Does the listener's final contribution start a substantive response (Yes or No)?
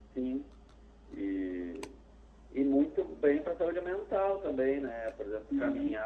No